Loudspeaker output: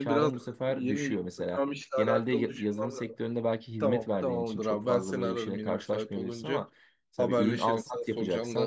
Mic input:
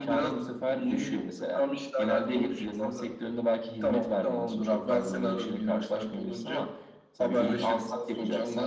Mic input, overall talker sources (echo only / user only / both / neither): echo only